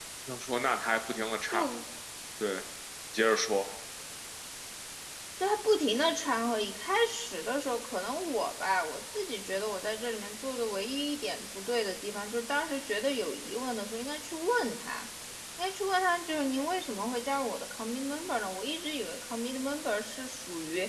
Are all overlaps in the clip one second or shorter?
Yes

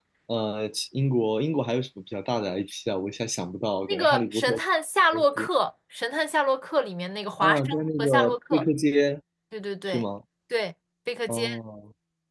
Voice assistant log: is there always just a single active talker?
No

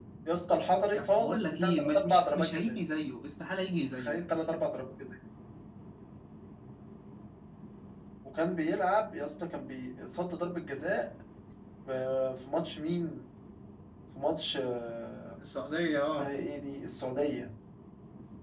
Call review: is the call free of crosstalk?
No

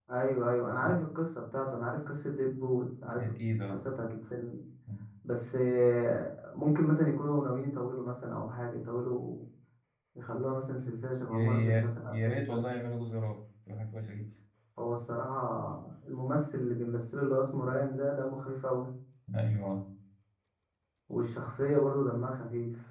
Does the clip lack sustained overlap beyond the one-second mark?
No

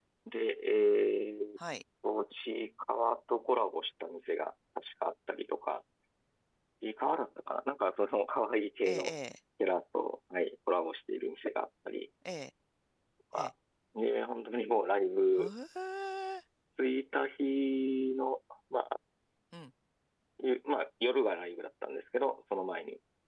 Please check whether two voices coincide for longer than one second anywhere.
No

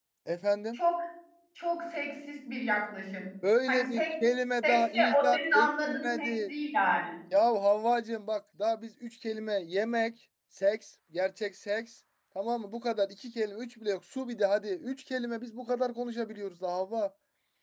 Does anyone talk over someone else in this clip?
Yes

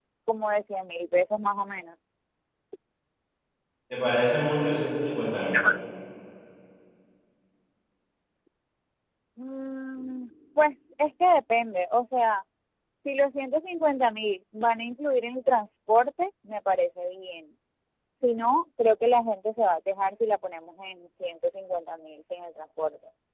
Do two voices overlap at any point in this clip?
No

